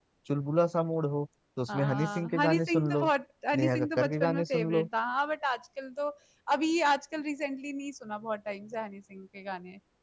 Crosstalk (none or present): present